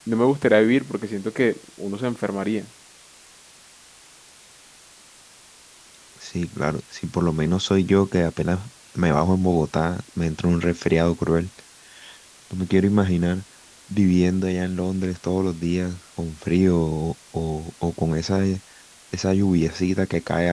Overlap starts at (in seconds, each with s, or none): none